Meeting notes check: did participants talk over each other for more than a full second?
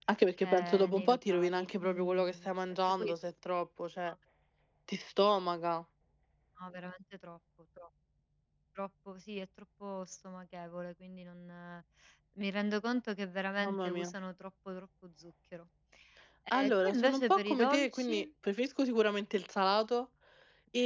Yes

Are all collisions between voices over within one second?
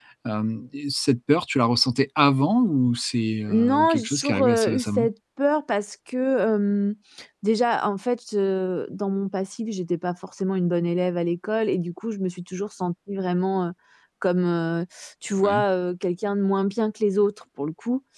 No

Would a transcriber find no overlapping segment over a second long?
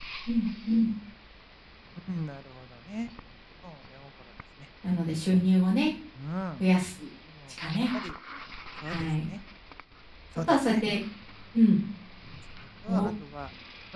Yes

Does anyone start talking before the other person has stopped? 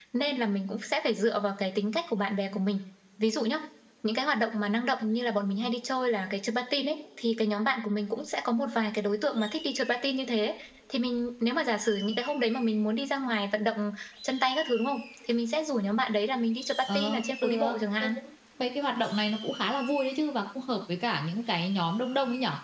Yes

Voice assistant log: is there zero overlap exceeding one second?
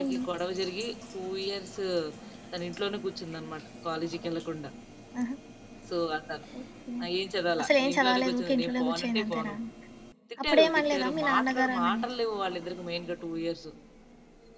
No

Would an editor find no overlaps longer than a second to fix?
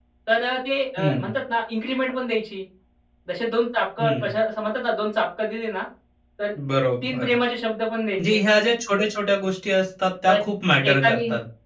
Yes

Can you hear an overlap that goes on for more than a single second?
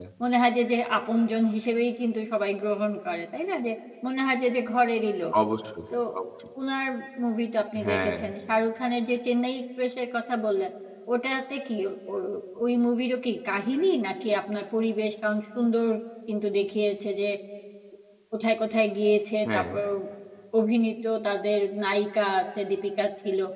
No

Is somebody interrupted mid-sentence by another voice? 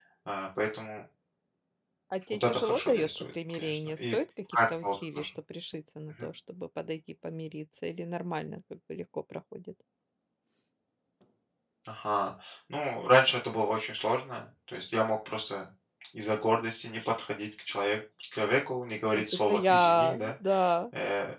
Yes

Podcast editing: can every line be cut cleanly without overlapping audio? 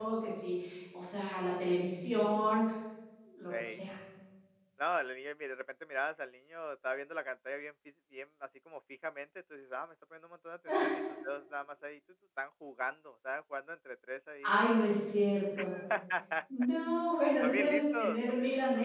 No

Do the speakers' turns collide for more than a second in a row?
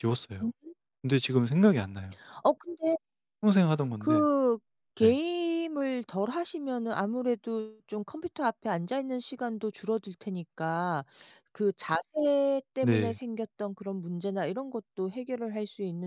No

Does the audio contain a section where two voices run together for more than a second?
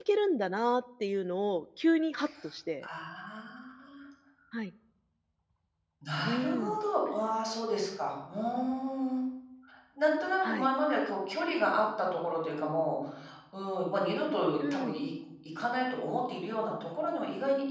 No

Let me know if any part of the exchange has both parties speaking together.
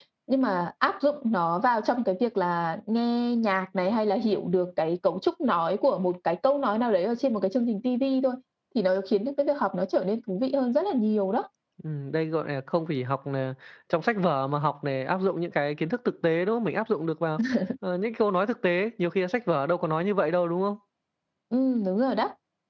No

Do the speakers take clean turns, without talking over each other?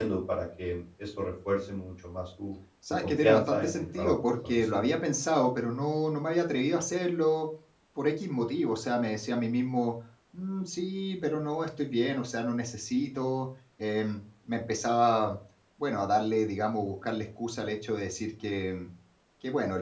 No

